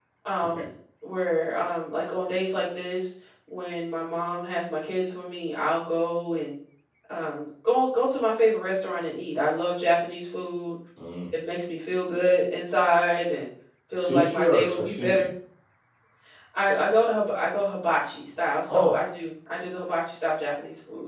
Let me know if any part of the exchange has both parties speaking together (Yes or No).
Yes